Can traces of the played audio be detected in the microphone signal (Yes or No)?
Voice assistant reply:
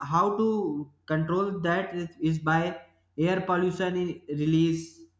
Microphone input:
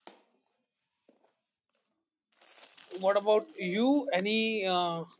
No